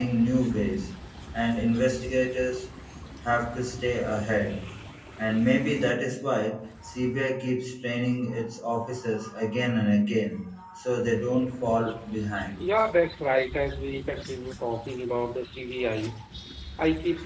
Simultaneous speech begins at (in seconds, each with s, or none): none